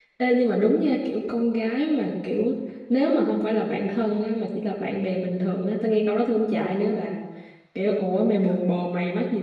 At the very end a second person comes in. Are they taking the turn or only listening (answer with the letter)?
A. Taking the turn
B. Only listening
B